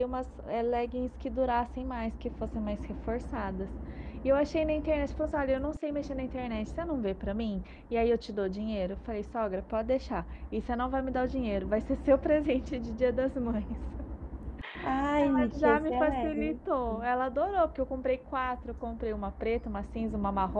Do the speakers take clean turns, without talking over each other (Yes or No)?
No